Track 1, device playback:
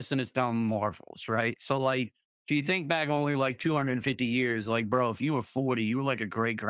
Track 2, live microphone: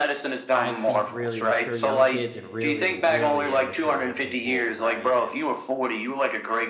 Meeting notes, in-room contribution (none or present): present